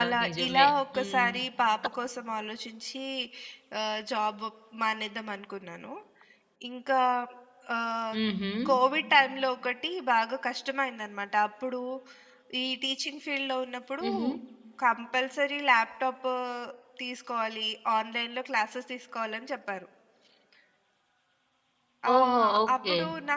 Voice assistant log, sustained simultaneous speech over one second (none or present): present